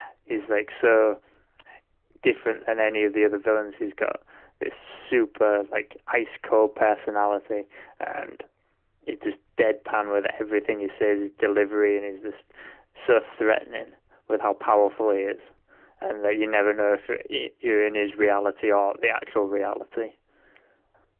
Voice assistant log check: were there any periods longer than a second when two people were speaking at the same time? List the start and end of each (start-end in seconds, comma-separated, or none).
none